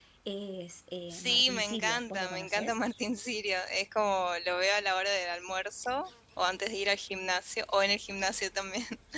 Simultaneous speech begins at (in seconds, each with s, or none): 1.1 s